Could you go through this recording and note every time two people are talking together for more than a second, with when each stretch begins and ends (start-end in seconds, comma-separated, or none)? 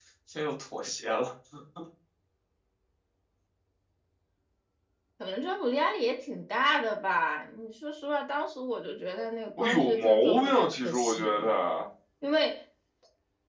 9.6-11.5